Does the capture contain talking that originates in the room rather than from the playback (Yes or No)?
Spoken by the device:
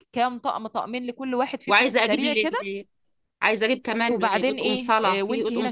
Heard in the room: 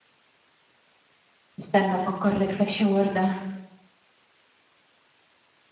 Yes